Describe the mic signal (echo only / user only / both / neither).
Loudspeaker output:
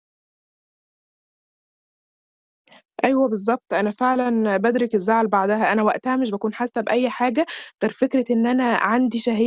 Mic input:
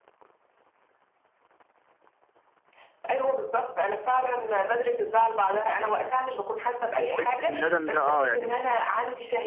both